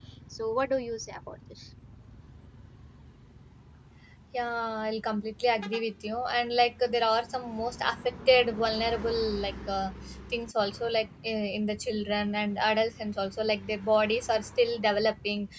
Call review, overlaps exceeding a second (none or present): none